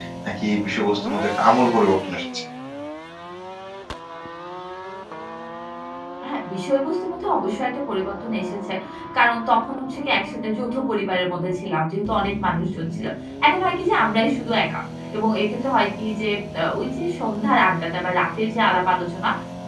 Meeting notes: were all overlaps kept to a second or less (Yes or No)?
Yes